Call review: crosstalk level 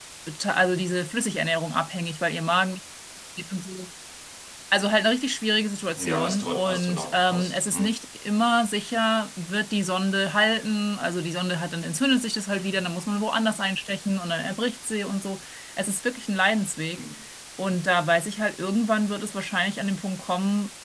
present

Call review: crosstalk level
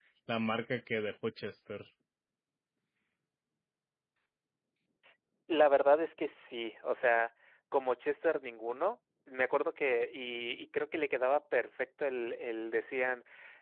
none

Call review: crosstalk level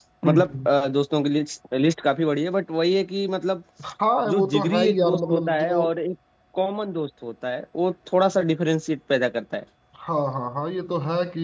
present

